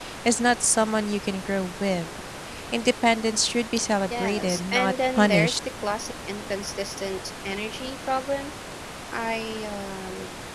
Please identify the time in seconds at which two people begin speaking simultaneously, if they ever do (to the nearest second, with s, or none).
4 s